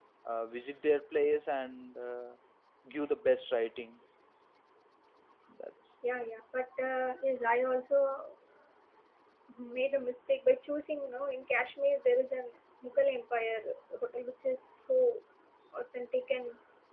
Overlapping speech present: No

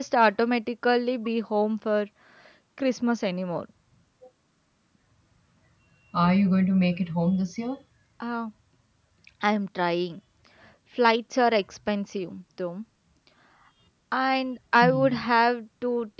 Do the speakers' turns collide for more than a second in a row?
No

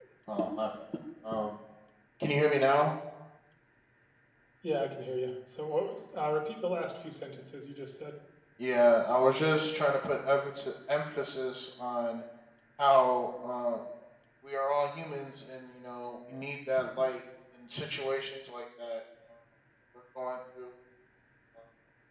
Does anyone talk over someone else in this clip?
No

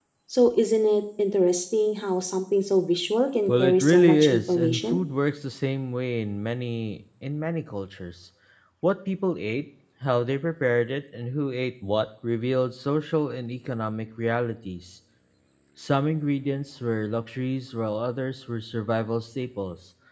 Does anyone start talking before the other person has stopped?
Yes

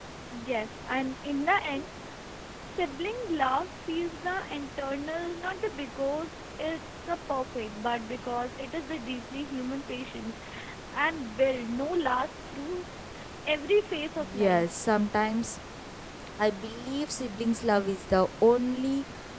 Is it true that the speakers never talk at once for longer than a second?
Yes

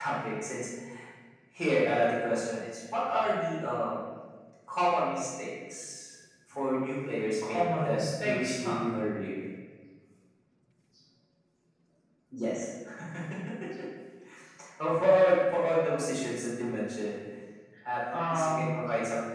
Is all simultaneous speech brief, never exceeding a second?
No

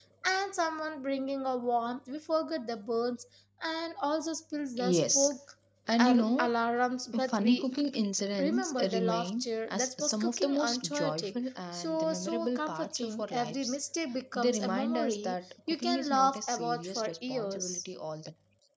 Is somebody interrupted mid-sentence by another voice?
Yes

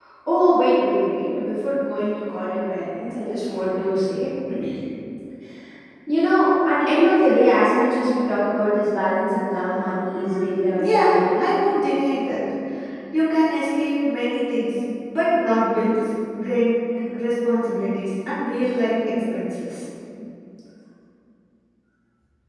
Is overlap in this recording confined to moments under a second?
No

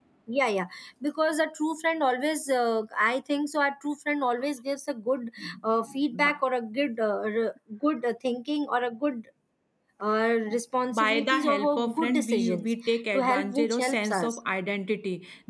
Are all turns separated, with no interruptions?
No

